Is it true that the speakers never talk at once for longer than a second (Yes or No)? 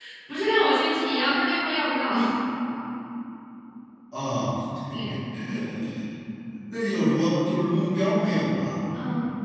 Yes